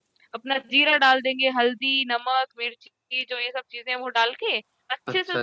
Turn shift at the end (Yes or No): No